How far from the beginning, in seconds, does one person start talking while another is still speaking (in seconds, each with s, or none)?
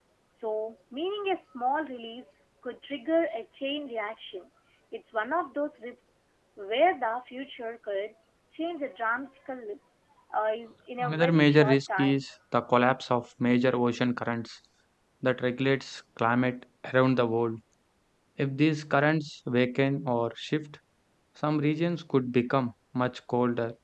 11.0 s